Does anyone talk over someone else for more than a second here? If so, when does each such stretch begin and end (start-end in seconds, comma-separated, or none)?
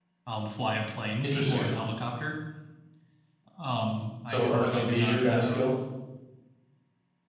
4.3-5.7